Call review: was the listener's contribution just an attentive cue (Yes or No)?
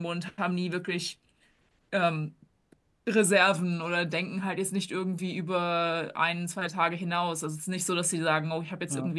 Yes